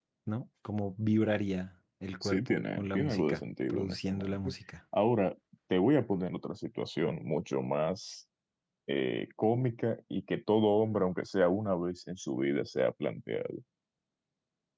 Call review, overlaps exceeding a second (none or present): present